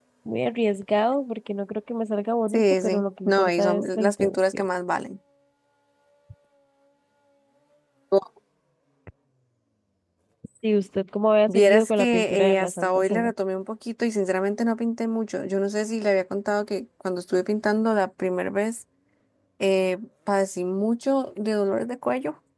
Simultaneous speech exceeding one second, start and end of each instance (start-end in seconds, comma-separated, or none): 2.5-4.6, 11.5-13.3